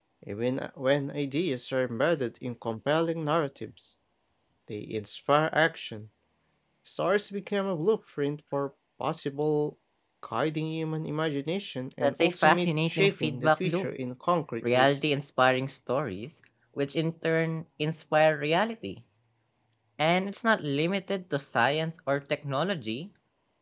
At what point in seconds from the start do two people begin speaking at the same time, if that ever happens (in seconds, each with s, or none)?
12.0 s